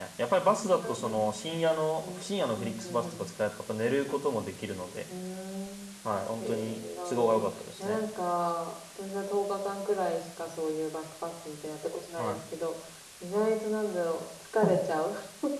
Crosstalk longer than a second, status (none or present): present